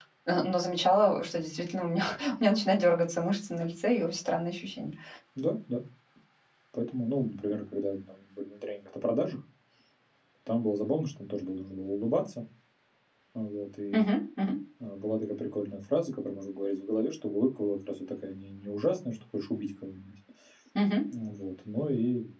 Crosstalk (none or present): none